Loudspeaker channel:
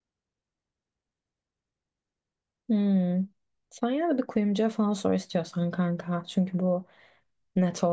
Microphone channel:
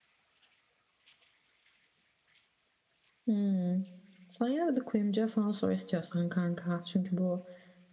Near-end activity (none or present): none